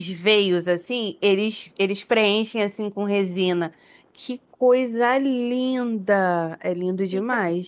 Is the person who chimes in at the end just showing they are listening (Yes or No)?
No